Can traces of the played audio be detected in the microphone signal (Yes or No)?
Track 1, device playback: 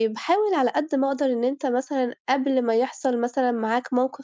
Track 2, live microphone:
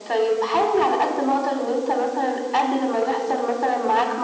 Yes